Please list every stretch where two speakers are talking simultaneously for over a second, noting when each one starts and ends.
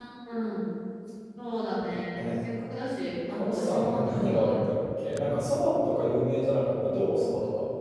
3.3-4.5

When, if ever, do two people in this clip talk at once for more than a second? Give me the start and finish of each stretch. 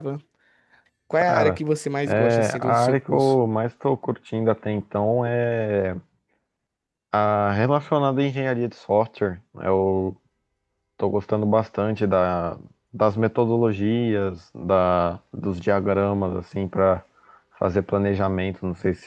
2.1-3.3

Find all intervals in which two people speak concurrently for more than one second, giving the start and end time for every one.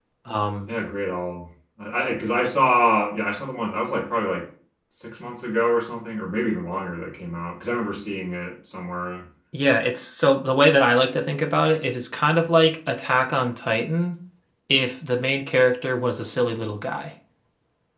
none

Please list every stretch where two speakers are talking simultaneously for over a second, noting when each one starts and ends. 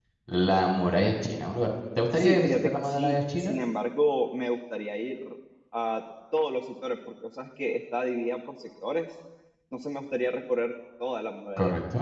2.1-3.6

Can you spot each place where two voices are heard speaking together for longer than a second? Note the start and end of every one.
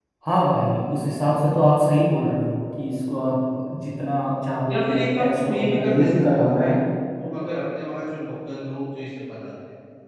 4.7-6.7

